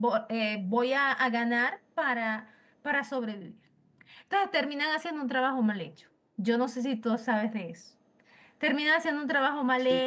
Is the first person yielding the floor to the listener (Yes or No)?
No